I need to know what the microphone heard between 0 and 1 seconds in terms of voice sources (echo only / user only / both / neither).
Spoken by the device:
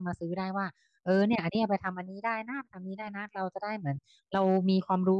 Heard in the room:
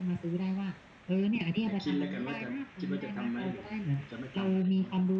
echo only